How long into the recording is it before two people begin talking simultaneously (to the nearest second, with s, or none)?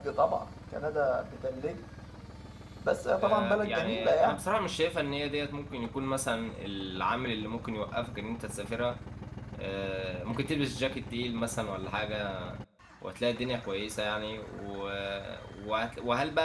3 s